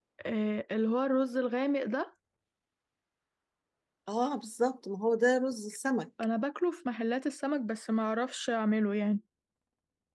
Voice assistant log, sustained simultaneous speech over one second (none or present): none